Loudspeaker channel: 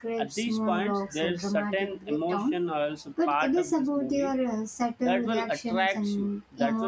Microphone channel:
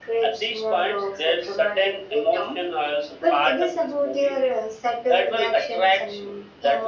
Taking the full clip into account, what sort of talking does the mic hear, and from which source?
echo only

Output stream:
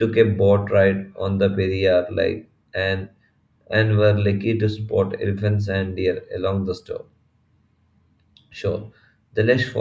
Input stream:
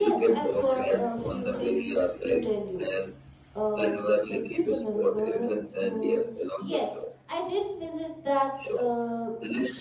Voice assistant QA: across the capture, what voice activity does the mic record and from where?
both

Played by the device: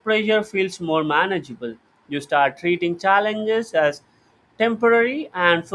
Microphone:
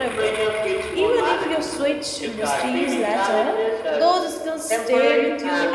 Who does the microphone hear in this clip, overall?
both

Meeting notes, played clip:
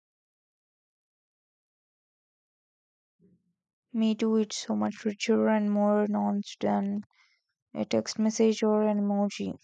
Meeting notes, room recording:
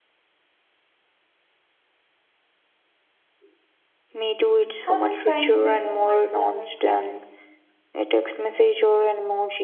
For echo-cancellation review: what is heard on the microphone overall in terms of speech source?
both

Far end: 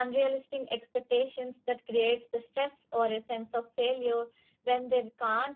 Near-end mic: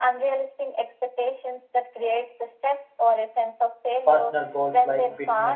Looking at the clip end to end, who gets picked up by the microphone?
both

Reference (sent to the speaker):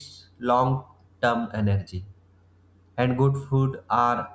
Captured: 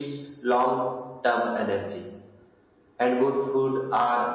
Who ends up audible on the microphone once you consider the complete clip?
echo only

